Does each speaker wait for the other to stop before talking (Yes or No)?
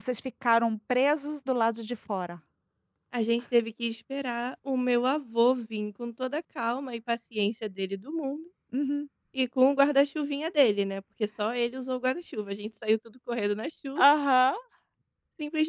Yes